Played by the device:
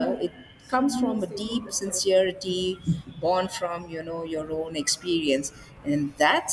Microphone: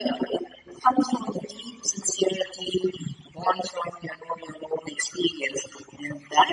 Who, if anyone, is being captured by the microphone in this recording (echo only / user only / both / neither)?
echo only